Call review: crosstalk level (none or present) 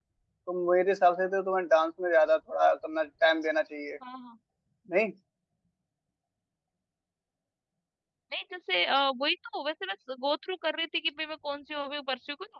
none